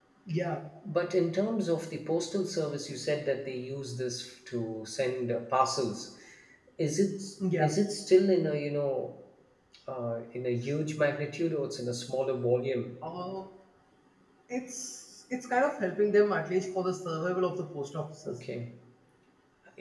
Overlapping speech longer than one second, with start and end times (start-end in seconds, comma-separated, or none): none